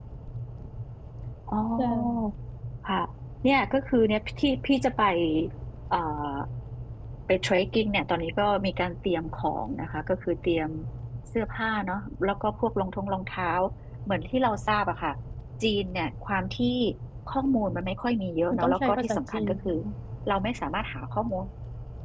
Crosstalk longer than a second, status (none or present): present